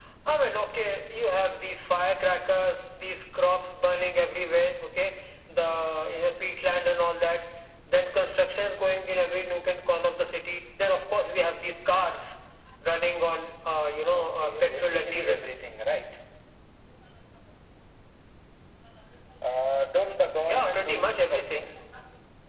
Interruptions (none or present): present